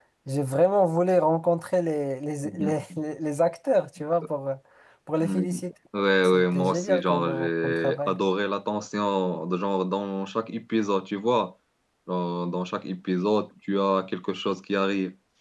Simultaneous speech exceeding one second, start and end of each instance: 6.2-8.2

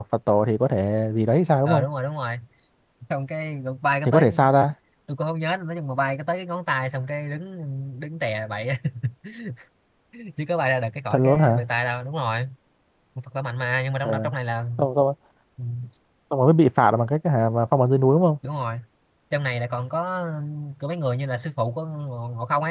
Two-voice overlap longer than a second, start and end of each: none

